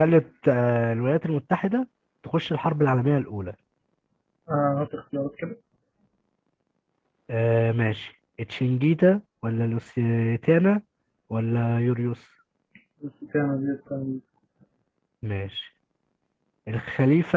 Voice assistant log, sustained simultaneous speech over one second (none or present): none